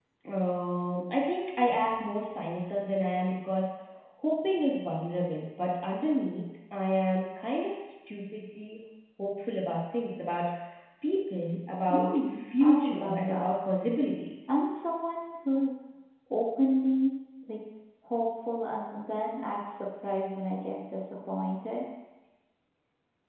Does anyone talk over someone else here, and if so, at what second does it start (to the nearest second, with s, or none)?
12 s